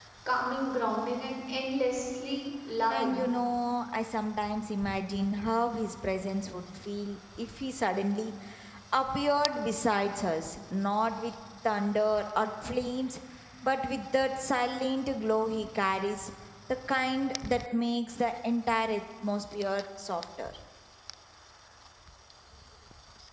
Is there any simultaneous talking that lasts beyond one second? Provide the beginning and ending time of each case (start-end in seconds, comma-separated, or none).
none